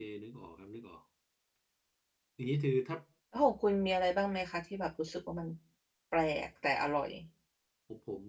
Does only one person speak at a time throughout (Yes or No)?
Yes